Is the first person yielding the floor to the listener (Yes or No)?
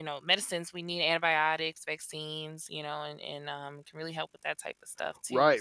Yes